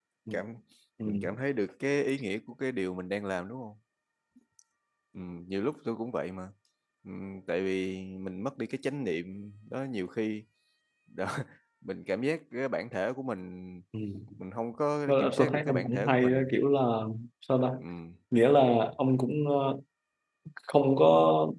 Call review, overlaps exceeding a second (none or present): present